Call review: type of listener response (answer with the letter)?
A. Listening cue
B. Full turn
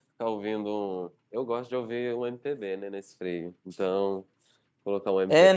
B